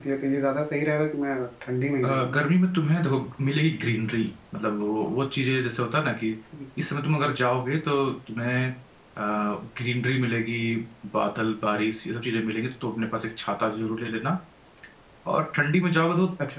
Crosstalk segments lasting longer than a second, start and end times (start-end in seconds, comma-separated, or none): none